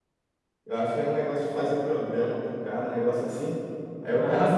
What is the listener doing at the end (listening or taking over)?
listening